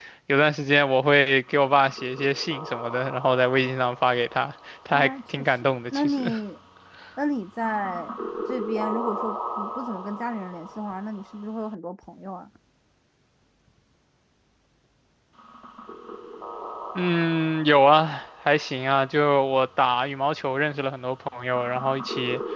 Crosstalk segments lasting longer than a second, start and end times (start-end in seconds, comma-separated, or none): 4.9-6.3